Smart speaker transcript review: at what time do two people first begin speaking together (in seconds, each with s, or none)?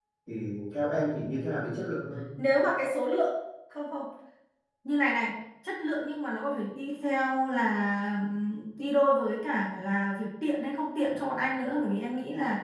none